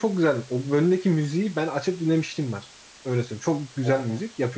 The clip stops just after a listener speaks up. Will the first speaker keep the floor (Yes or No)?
Yes